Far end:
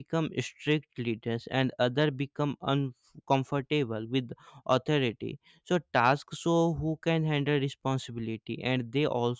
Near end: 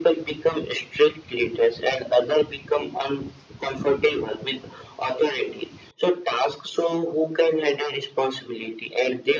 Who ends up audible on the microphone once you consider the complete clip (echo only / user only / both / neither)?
echo only